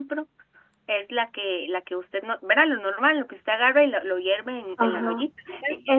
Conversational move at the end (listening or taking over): taking over